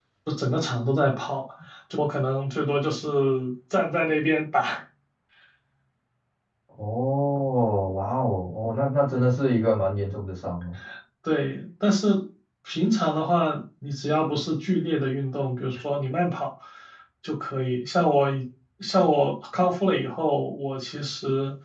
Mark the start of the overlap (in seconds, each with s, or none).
none